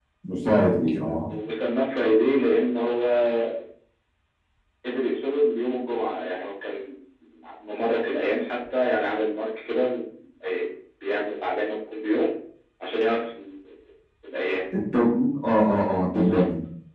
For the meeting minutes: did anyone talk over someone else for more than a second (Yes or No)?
No